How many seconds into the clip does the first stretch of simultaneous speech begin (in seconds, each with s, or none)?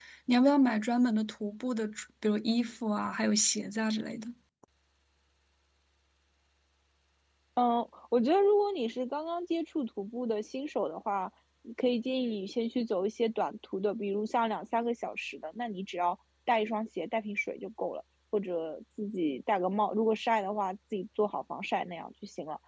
none